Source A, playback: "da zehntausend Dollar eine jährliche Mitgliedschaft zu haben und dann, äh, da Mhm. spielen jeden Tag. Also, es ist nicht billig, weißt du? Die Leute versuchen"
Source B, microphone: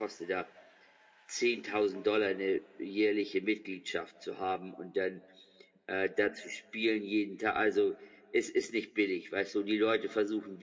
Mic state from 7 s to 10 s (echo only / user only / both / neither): echo only